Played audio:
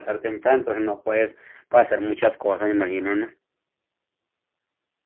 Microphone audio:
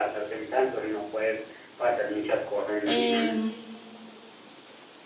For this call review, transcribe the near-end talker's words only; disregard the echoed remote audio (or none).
eh,